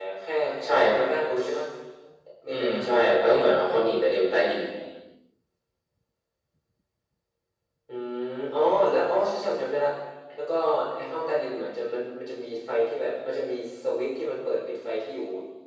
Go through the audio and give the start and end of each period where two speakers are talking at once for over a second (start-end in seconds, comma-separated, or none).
2.5-3.7